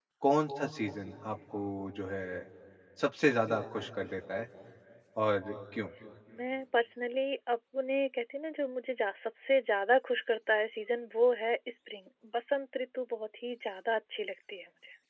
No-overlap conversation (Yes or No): Yes